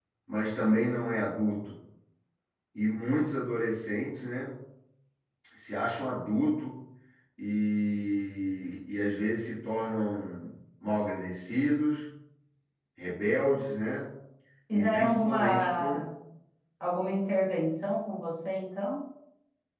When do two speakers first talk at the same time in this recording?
15 s

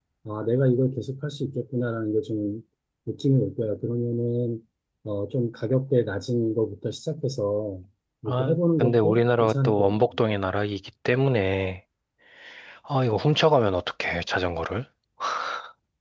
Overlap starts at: 8 s

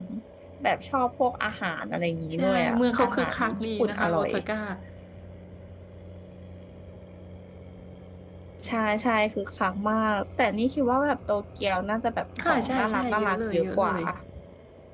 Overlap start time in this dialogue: 2 s

